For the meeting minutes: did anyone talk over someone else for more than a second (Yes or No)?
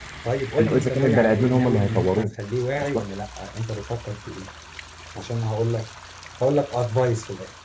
Yes